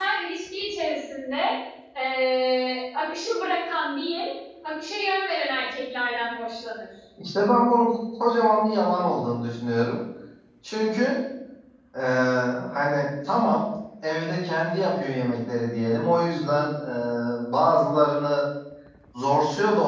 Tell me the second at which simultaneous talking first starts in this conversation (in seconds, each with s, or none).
none